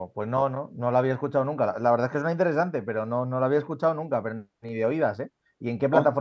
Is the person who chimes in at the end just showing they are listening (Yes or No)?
No